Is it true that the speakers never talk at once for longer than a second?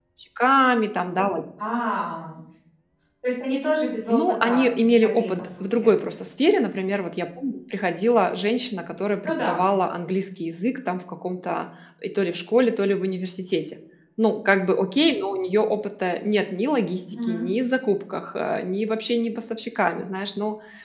No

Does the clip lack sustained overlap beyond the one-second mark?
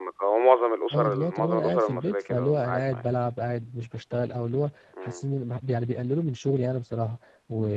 No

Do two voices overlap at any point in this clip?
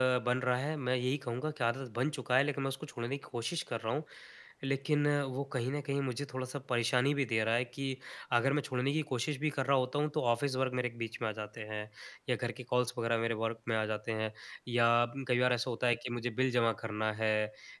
No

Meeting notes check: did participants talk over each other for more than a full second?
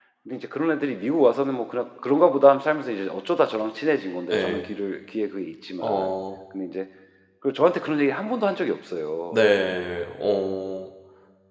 No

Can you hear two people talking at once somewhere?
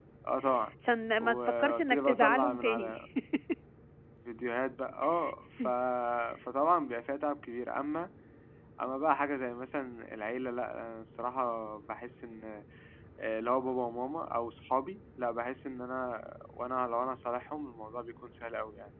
Yes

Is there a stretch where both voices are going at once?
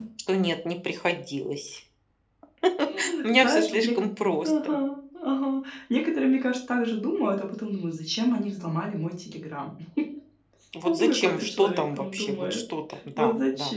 Yes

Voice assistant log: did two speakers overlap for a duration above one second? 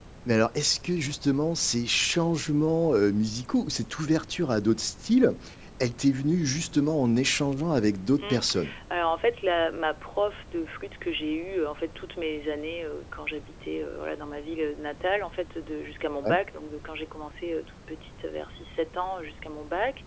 No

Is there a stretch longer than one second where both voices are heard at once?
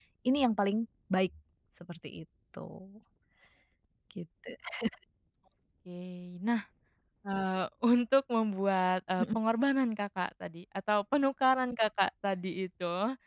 No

